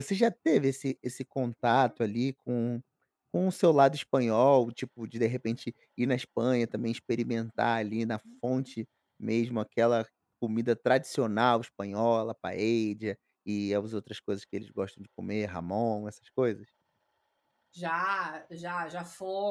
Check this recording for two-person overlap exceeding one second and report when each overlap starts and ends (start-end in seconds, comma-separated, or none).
none